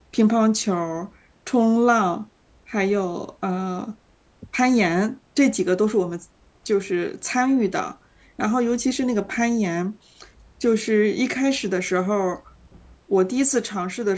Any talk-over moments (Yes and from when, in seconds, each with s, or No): No